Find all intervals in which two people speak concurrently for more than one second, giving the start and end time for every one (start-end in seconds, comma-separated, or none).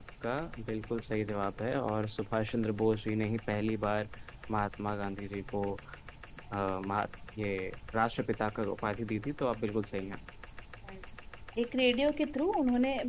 none